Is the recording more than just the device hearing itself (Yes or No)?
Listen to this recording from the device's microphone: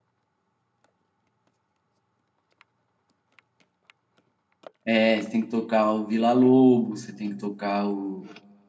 Yes